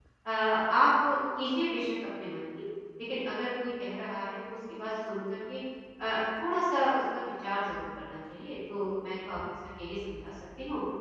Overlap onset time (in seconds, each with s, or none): none